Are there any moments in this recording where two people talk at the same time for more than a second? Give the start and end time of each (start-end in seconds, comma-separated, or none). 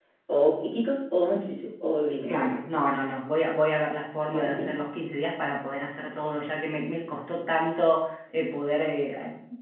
none